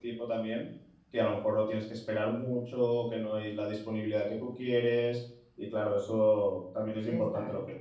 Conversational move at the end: listening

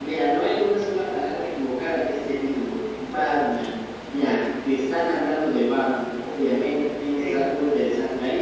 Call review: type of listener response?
listening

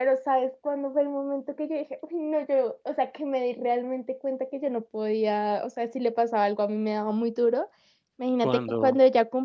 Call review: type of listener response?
listening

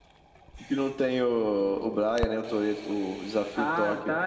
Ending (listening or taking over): taking over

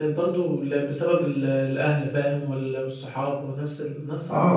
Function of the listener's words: taking over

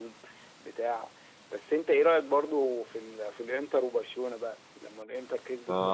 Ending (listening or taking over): taking over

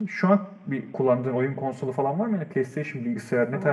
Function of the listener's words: taking over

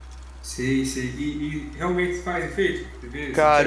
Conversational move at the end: taking over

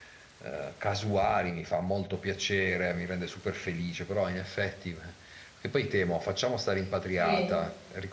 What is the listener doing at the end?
listening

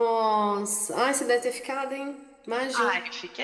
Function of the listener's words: taking over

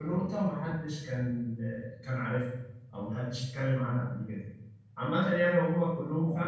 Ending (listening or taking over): listening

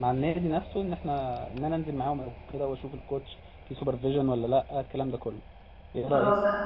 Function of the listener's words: taking over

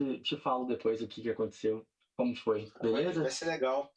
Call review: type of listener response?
taking over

